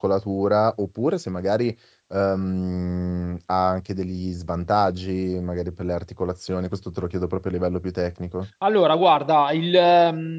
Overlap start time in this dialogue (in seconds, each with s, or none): none